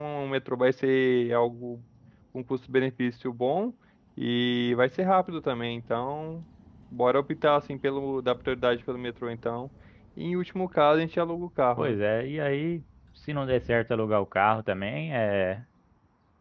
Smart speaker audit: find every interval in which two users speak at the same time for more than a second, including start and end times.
none

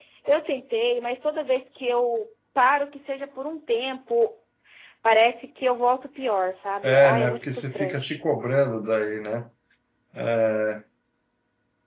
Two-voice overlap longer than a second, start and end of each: 6.8-8.2

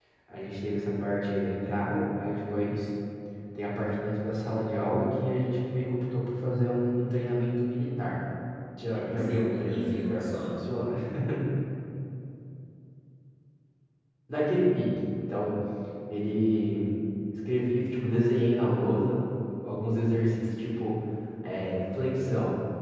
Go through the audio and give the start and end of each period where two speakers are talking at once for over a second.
8.9-10.5

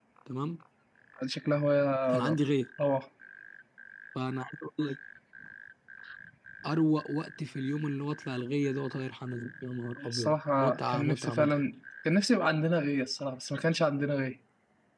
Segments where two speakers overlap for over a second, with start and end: 10.1-11.6

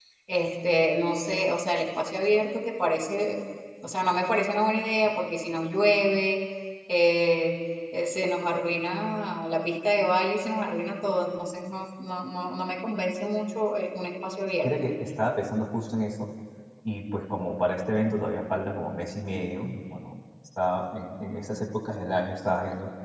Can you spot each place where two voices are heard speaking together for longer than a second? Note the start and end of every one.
none

